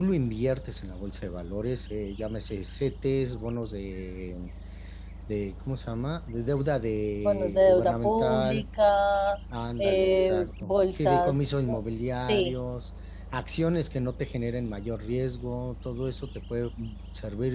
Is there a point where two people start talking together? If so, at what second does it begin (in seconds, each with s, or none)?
7.2 s